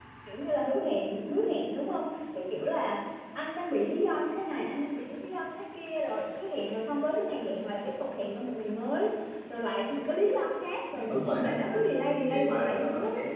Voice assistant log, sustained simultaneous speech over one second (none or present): present